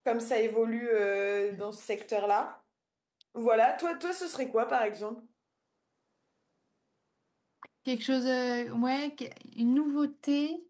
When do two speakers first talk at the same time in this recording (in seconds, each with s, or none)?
none